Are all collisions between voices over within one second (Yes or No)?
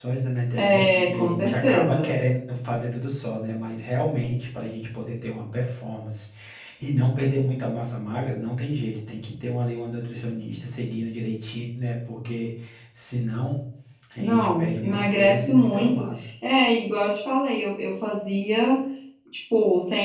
No